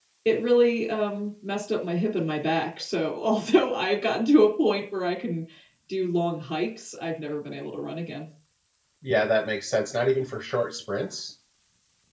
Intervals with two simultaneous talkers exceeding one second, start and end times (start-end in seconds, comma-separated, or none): none